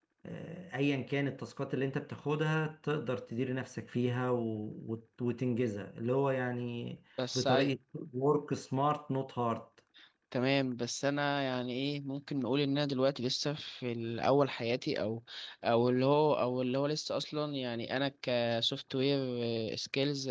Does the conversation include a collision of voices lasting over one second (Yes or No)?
No